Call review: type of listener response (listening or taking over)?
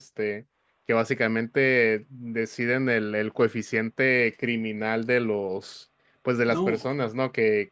listening